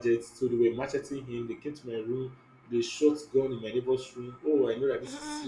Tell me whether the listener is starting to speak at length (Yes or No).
No